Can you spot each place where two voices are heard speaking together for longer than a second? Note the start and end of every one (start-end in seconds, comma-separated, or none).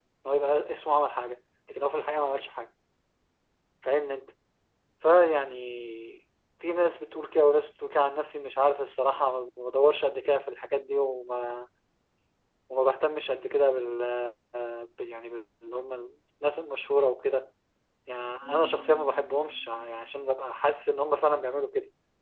none